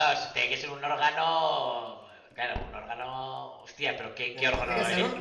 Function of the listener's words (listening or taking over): taking over